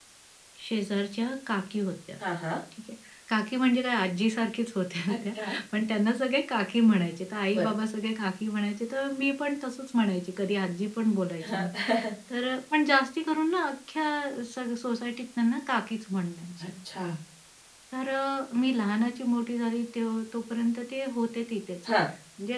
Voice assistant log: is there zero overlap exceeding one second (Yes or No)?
Yes